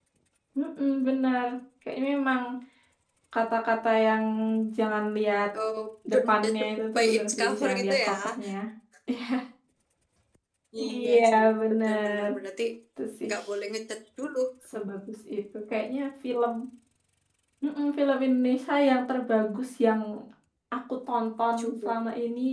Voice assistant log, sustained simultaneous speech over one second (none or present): present